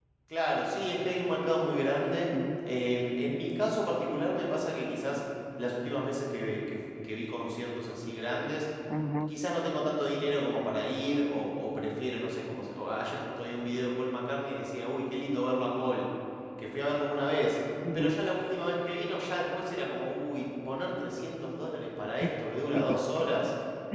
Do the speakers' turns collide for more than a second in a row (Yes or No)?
No